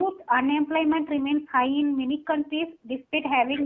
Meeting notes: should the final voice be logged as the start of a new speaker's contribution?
No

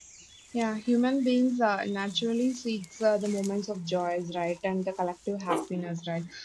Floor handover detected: No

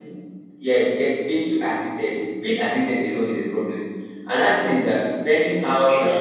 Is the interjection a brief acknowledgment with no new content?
Yes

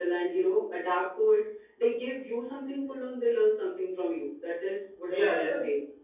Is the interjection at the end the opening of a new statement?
Yes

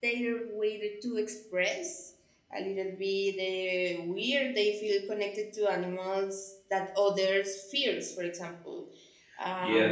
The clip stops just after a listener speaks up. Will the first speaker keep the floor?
Yes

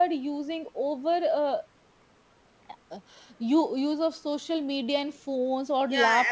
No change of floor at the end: No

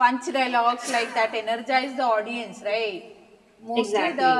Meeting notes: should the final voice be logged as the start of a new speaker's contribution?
No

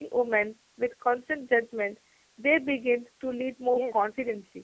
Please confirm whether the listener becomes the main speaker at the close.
Yes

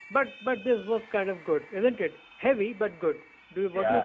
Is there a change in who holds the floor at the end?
Yes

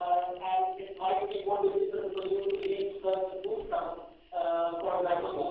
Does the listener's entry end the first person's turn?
No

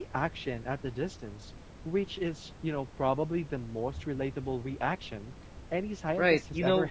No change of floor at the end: No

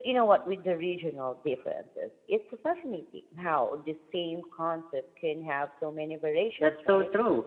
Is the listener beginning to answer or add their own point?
Yes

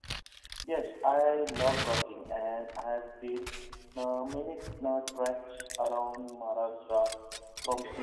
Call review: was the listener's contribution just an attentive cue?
Yes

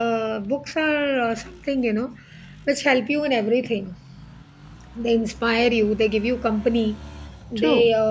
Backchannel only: Yes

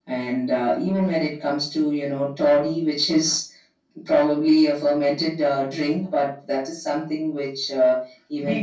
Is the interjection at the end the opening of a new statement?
Yes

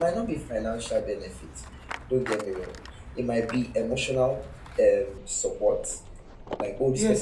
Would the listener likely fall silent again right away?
No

